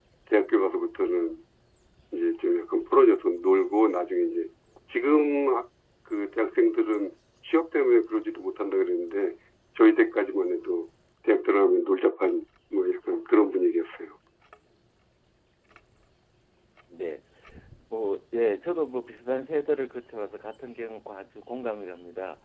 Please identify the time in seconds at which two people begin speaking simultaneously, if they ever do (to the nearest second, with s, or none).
none